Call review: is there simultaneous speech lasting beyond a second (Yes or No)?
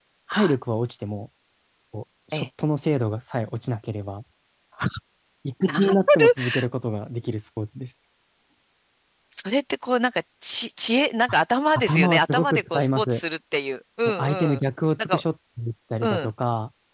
Yes